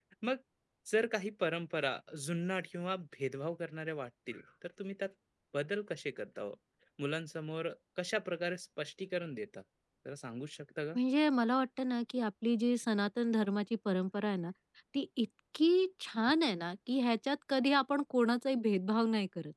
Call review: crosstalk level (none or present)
none